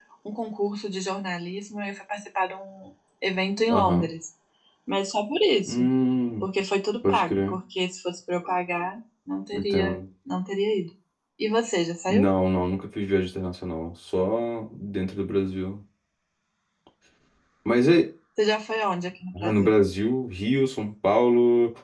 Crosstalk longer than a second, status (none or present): none